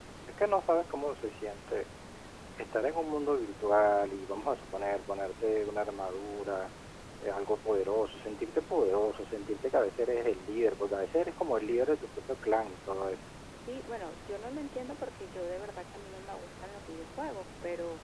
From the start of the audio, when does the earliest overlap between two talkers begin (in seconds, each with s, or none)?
none